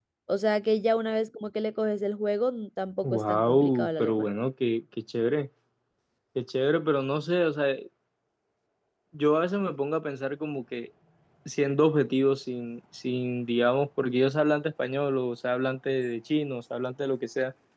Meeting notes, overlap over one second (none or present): present